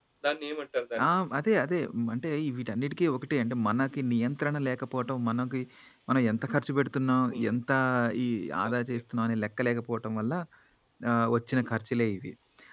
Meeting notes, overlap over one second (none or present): none